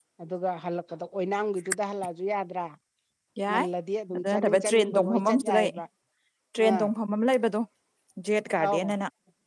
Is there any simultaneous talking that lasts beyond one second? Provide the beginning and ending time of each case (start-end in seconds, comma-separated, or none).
4.2-5.7